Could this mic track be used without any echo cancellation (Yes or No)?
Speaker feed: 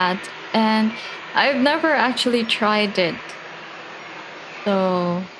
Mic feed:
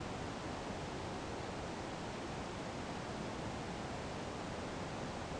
Yes